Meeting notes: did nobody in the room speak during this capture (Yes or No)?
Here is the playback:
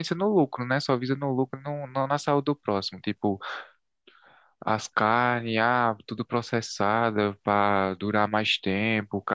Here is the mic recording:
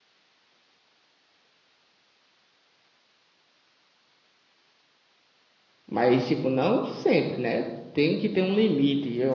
No